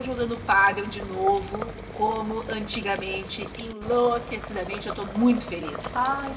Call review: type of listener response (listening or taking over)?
taking over